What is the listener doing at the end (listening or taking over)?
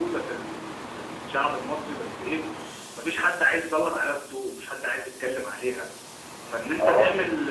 listening